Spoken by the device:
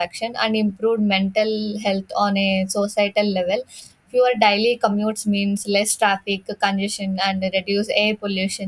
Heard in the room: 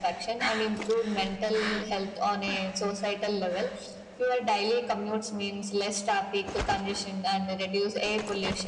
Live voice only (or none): none